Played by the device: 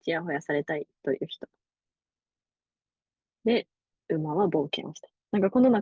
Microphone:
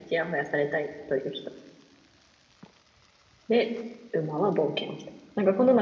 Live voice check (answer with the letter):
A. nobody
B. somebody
A